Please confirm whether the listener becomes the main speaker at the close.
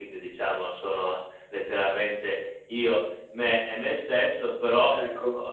No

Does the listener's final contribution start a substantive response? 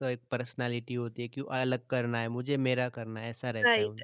Yes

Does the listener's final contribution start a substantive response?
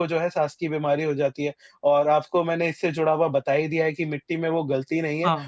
No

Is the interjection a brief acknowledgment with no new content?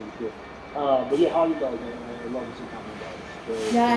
No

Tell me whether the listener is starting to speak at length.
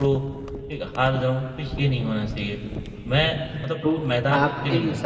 Yes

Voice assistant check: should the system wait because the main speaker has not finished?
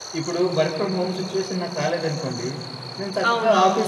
Yes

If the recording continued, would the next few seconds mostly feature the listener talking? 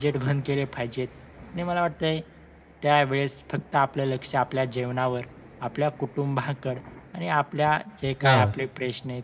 No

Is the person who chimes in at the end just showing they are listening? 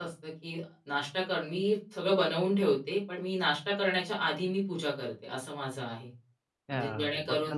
No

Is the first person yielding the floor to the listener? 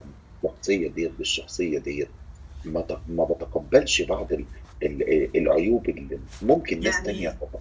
No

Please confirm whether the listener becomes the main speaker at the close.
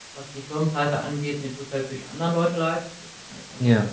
No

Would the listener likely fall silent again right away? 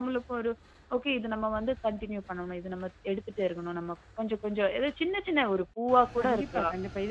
No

